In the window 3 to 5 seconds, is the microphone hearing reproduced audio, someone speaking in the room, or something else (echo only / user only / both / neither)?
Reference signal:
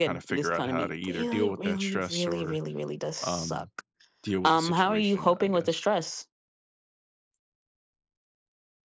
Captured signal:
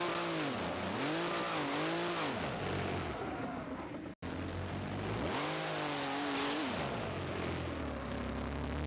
neither